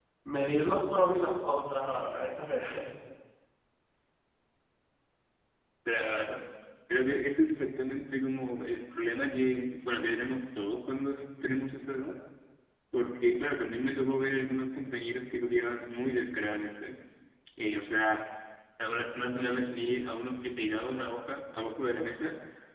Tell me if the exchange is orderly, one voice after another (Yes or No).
Yes